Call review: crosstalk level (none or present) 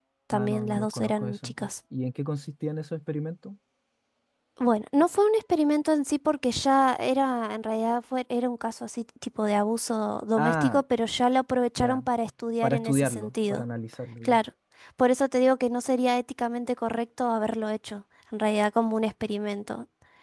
present